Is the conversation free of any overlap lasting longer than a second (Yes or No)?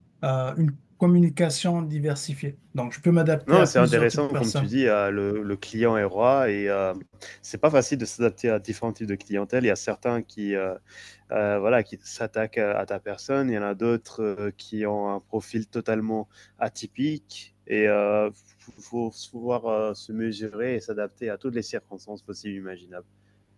No